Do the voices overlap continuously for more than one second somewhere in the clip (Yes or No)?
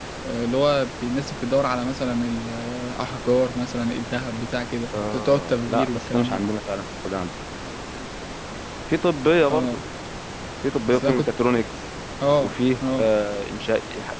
Yes